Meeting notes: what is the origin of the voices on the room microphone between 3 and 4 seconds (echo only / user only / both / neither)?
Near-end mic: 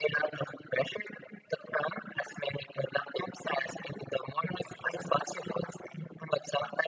echo only